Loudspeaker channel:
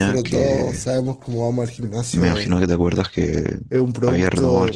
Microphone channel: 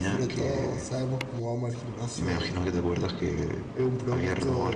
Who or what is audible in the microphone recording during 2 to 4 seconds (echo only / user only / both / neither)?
echo only